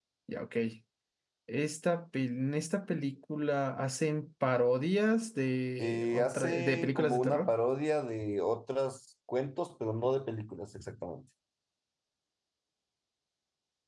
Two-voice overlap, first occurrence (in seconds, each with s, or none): 5.8 s